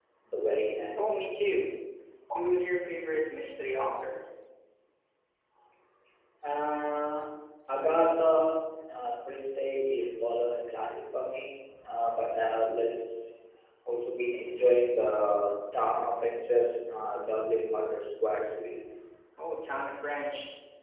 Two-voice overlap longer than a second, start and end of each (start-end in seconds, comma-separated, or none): none